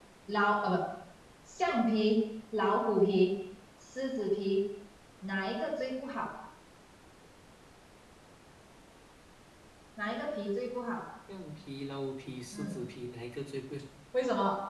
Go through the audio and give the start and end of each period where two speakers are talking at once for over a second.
none

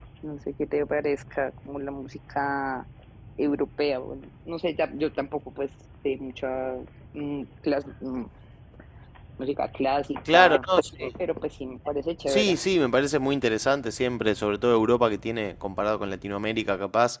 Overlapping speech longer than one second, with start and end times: none

